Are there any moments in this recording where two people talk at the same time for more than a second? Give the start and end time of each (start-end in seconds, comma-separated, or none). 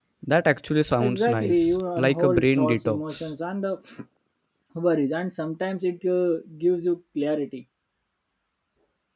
1.0-3.2